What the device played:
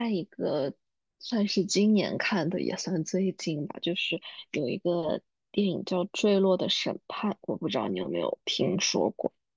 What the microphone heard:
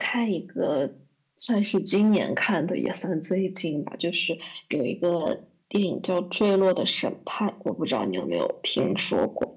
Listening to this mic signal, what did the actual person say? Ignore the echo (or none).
none